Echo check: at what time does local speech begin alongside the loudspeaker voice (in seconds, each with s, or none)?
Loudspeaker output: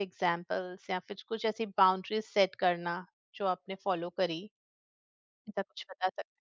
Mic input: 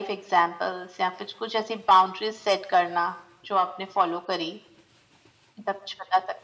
none